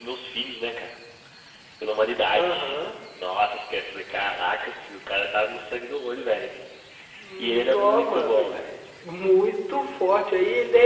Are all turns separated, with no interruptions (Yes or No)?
No